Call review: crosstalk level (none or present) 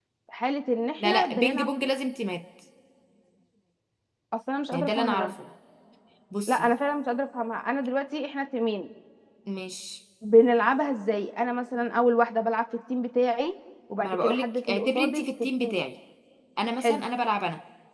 present